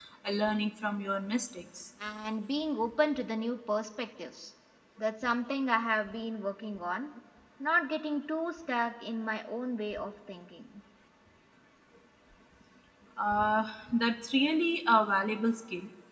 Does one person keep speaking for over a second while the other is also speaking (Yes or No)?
No